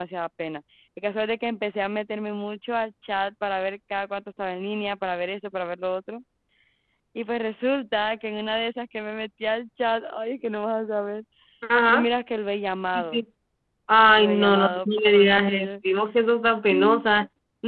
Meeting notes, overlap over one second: present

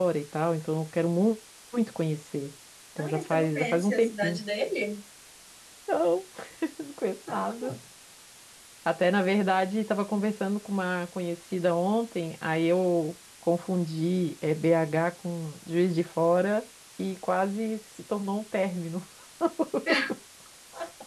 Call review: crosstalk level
present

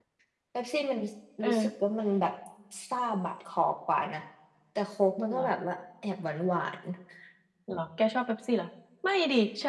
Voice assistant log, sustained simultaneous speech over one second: none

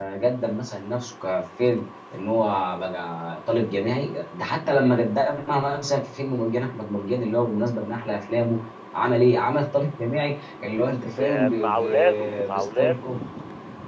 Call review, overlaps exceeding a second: present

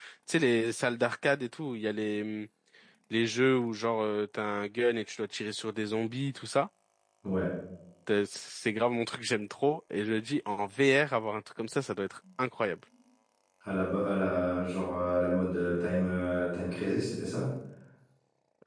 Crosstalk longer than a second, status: none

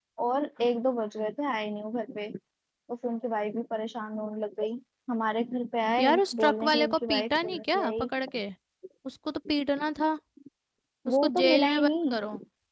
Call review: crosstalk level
present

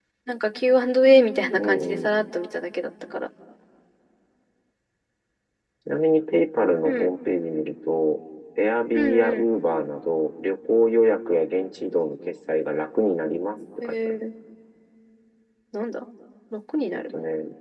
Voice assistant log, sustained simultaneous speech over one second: none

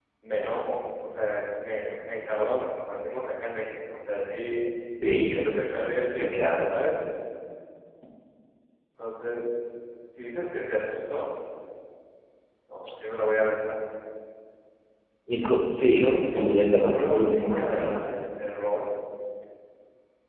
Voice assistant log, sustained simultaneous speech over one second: present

